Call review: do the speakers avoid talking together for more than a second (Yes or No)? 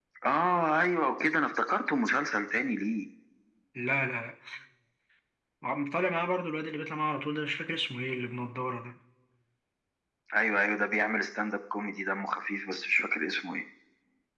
Yes